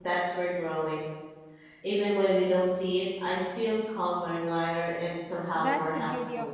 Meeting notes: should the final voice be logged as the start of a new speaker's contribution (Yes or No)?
Yes